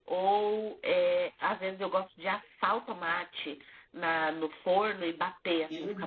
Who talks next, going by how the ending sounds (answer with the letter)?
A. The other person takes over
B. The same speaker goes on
A